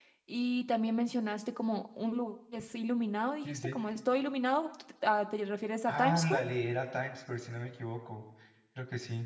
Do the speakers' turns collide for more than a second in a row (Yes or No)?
No